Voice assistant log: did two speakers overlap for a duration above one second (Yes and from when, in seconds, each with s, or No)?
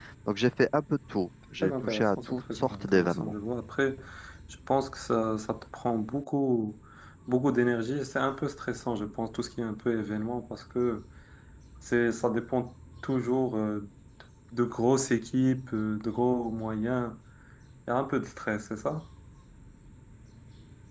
Yes, from 1.6 s